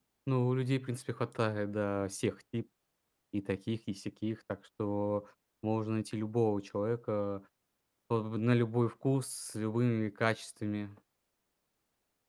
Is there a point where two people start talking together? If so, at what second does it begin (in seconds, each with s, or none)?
none